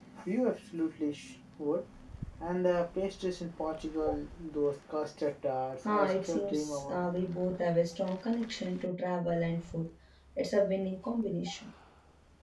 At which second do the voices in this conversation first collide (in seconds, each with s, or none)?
5.8 s